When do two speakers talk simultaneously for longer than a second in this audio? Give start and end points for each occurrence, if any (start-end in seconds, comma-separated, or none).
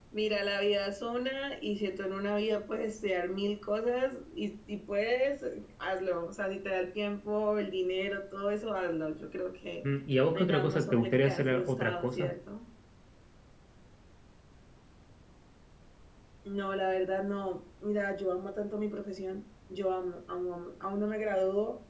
10.3-12.3